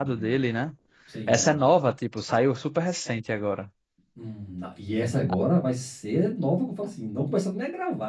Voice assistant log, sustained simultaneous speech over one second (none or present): none